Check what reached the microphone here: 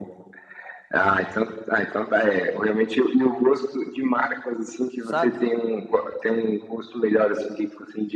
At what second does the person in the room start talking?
5 s

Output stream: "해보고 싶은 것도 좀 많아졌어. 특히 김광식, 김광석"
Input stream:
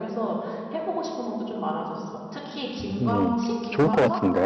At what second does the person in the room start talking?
3 s

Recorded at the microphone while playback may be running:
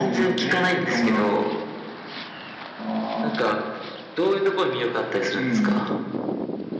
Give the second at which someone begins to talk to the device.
none

